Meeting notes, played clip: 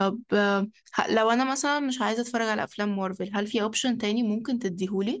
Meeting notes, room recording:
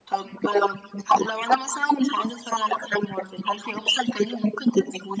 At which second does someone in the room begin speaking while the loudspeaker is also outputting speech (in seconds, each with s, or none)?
none